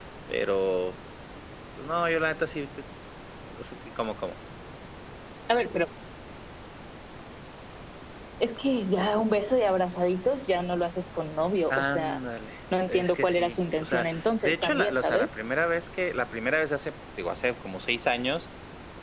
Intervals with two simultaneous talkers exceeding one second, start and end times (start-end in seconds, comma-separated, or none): 12.9-15.3